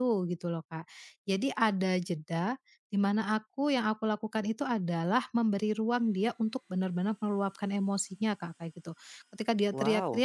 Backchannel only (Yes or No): Yes